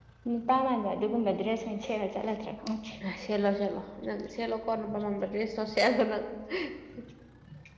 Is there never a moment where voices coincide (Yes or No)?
Yes